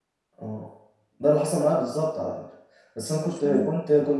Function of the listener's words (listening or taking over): listening